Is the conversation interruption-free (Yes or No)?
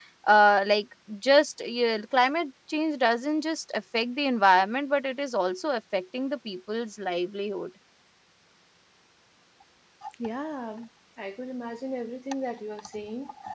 Yes